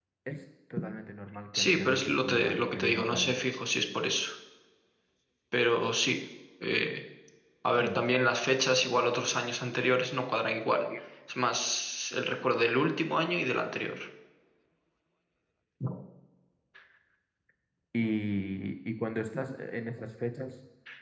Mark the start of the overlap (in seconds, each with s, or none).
1.5 s